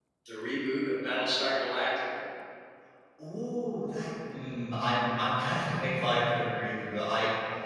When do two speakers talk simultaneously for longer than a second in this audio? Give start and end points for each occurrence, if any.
none

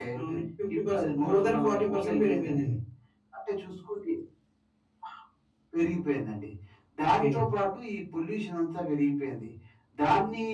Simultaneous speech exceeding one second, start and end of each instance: 0.9-2.7

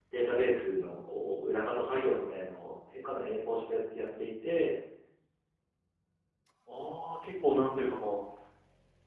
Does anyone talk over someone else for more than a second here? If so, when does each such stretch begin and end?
none

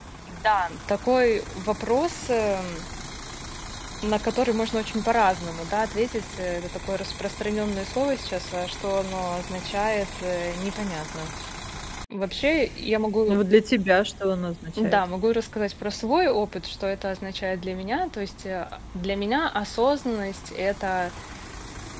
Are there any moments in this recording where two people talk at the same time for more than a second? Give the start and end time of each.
none

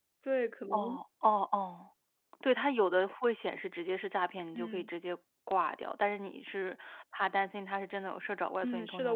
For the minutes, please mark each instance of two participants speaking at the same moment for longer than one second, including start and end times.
none

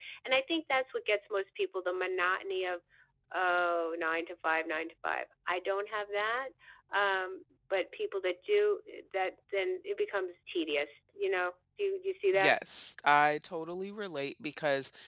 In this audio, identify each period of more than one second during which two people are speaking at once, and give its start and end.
none

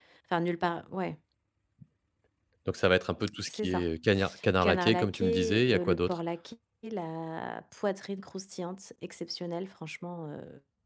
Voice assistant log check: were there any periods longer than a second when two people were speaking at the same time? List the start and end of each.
4.6-6.2

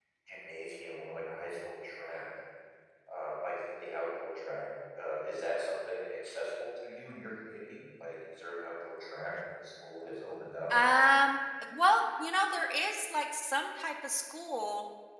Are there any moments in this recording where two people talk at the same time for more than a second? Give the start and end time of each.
none

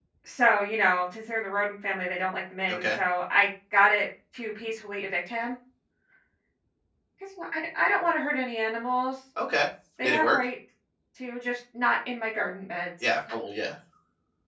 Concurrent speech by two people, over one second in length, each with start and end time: none

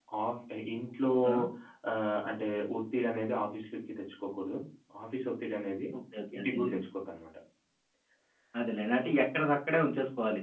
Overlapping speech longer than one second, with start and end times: none

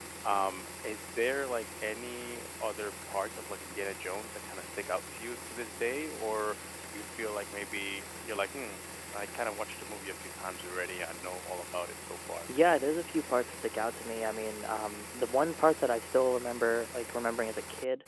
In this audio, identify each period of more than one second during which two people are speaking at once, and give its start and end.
none

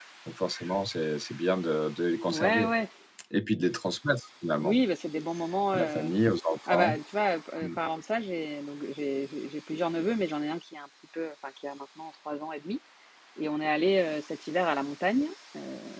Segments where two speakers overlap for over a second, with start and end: none

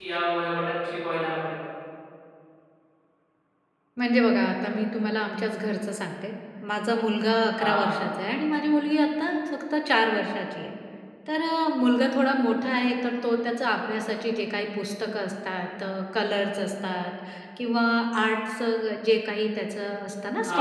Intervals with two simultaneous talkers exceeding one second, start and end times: none

